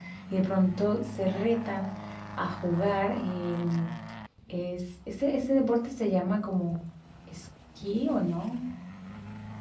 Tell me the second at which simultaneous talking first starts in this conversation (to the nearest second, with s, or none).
none